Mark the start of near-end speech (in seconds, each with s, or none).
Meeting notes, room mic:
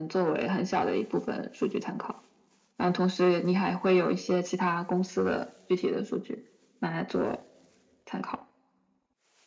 none